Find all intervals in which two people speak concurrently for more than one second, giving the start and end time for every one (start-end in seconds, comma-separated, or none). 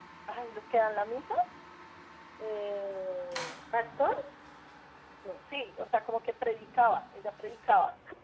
none